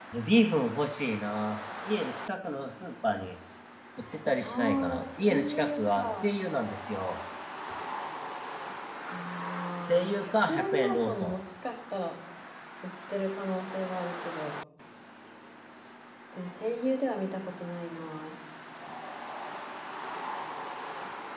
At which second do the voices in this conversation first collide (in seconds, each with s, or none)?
4.4 s